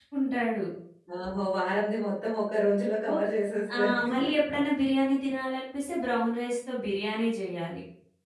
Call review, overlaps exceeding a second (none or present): none